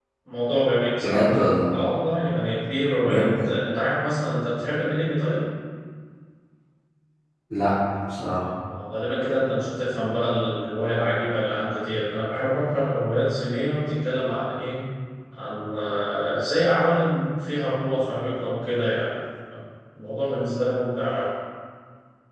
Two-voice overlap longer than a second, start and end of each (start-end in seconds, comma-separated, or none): none